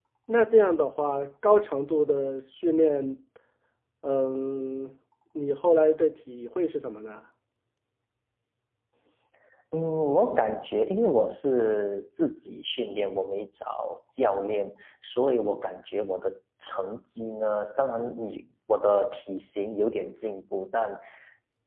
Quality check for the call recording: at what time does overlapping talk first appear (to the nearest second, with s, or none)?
none